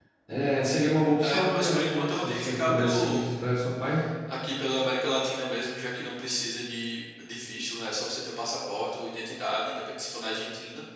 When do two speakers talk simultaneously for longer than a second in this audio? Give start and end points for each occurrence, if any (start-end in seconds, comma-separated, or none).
1.2-3.2